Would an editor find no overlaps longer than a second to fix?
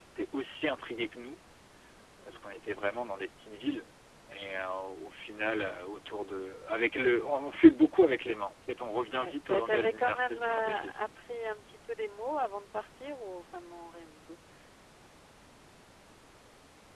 No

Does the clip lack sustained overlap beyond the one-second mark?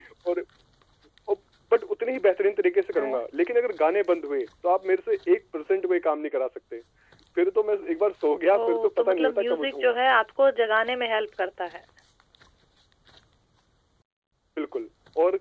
No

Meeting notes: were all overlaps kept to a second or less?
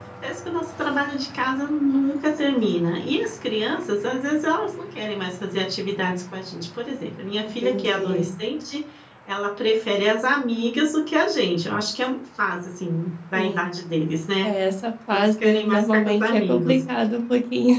No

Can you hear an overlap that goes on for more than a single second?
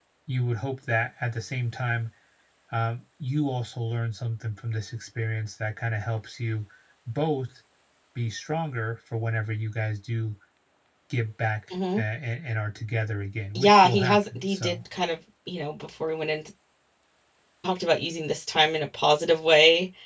Yes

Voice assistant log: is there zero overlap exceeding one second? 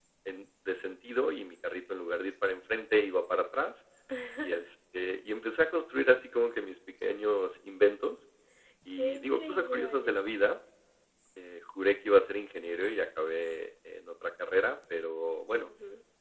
No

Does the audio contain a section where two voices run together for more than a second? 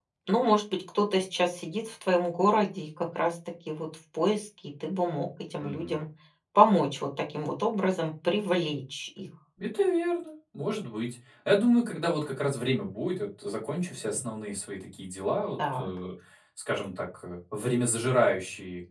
No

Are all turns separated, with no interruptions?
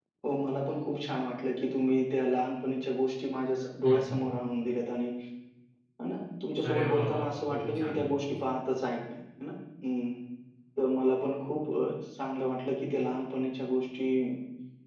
No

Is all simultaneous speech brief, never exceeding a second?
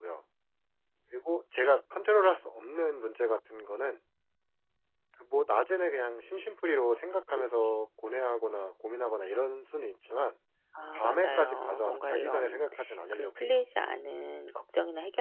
No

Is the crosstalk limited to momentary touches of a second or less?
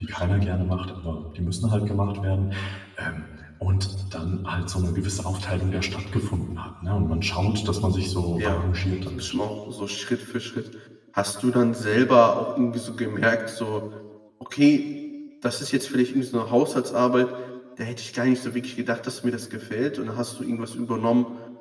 Yes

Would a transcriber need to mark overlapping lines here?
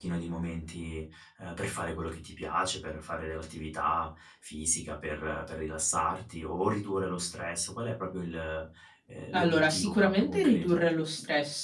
Yes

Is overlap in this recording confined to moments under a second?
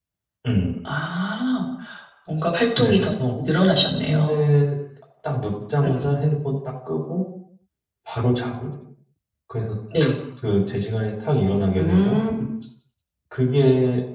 Yes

